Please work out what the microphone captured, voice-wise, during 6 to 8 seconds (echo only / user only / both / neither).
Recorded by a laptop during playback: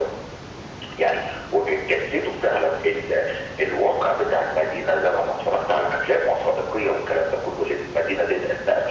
echo only